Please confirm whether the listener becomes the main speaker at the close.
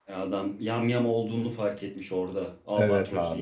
Yes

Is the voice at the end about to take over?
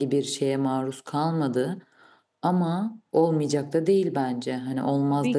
Yes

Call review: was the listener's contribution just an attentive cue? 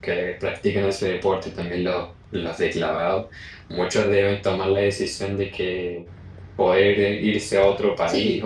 Yes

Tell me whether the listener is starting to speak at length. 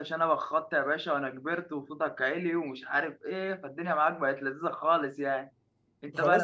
Yes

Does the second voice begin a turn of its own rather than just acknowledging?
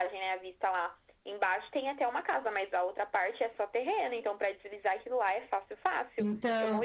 Yes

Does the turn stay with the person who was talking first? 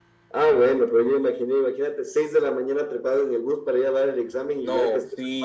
No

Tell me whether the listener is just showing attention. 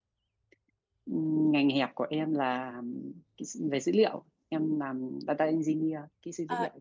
No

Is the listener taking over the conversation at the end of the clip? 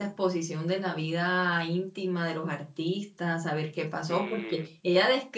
No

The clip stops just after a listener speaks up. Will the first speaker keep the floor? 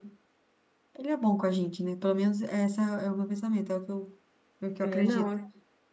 No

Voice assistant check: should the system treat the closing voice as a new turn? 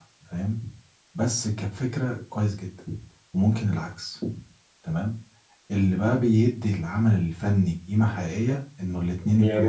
Yes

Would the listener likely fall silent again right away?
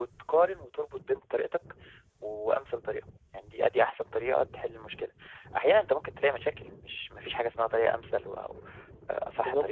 No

